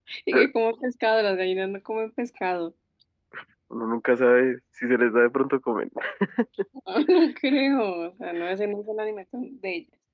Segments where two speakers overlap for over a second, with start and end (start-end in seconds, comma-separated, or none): none